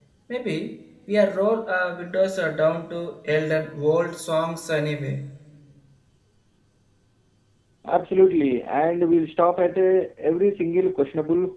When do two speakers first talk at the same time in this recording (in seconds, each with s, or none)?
none